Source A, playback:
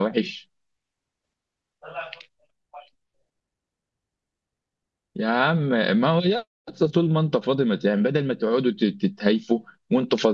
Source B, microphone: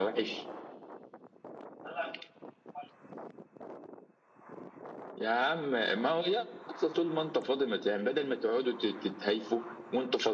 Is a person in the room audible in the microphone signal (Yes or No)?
No